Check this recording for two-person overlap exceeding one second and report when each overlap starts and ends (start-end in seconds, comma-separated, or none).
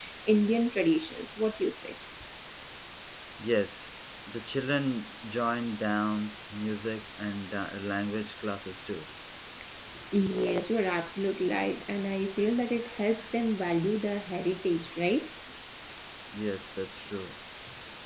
none